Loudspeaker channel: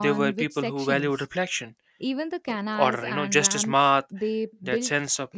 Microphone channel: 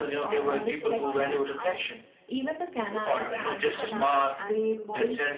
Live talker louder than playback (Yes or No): No